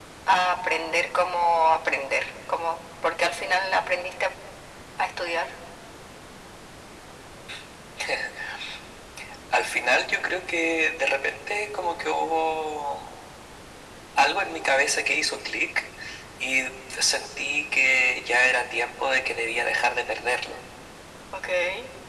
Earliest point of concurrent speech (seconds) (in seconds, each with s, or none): none